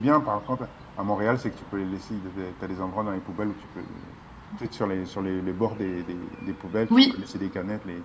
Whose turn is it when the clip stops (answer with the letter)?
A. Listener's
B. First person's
B